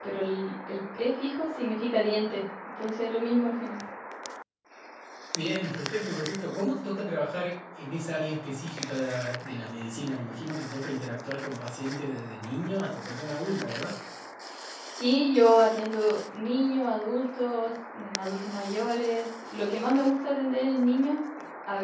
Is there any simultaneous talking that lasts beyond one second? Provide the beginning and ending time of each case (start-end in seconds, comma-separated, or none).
none